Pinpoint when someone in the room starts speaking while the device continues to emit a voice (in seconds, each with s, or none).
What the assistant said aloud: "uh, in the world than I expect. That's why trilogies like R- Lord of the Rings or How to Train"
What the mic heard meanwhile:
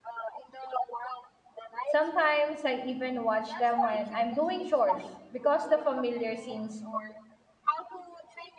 1.9 s